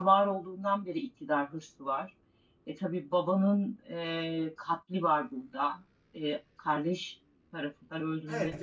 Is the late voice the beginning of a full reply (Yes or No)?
Yes